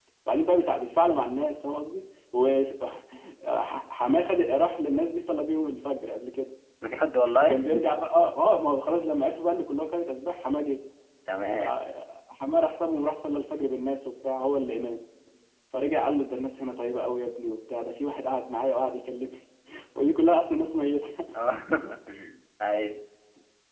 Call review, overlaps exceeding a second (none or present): none